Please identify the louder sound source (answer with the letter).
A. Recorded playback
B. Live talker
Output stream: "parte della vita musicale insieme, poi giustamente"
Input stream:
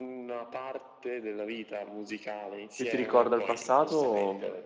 B